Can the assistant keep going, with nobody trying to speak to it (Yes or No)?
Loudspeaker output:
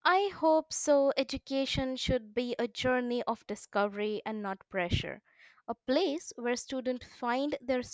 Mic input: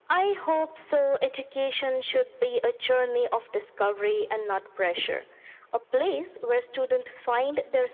Yes